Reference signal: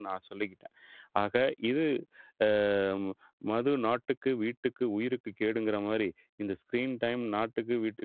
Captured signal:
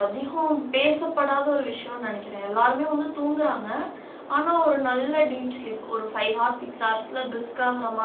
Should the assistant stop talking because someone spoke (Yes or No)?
Yes